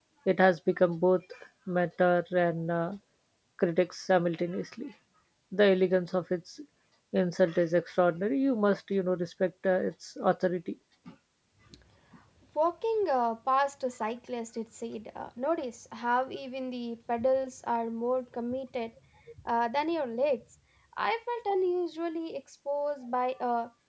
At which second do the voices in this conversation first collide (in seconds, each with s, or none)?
none